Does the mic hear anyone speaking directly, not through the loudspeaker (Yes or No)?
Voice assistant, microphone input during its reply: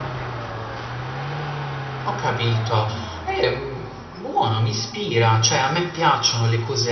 Yes